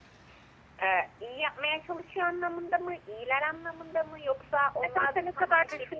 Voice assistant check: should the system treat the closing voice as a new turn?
Yes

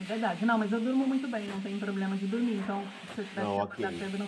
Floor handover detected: No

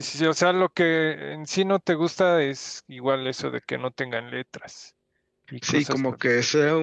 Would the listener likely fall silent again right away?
No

